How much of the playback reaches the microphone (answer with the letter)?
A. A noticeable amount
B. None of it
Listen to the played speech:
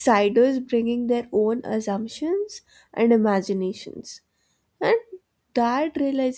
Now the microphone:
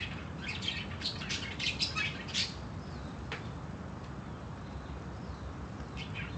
B